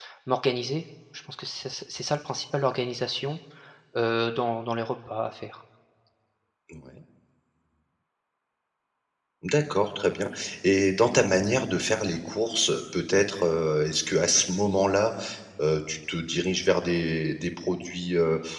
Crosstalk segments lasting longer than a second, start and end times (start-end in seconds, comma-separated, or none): none